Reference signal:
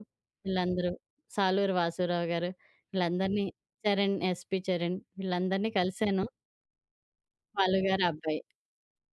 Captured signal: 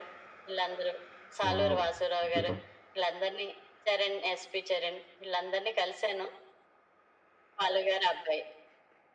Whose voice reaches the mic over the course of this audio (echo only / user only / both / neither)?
both